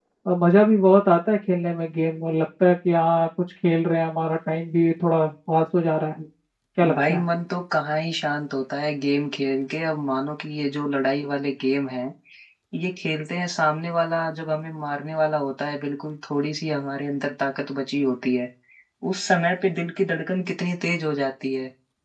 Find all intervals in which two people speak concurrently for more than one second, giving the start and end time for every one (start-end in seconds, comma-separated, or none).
none